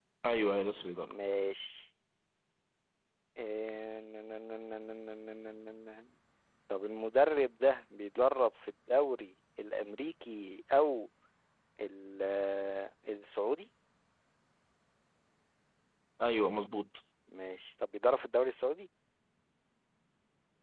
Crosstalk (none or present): none